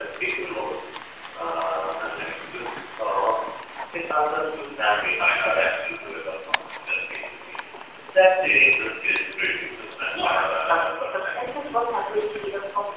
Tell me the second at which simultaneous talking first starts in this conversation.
10.1 s

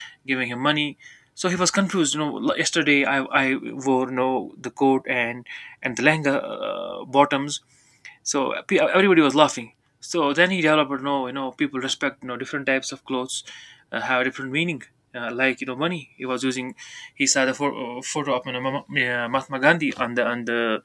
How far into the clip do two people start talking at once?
none

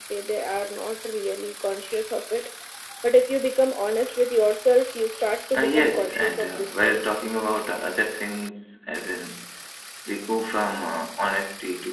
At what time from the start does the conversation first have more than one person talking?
5.5 s

